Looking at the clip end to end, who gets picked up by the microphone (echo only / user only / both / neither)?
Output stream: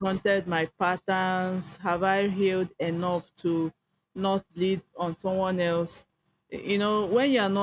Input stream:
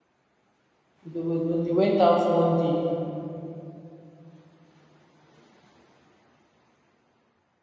user only